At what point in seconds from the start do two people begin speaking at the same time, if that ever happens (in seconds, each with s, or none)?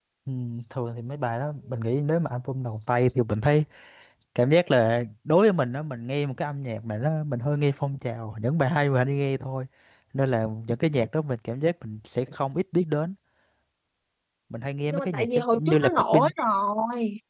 14.9 s